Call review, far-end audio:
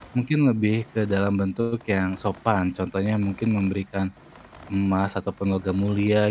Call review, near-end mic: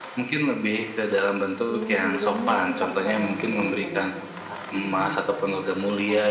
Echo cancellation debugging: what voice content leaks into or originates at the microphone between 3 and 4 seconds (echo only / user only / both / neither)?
both